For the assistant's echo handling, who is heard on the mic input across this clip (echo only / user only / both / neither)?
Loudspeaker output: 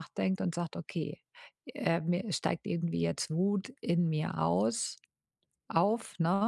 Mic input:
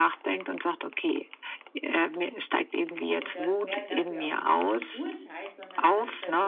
both